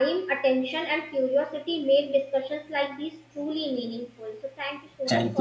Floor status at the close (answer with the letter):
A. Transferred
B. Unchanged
A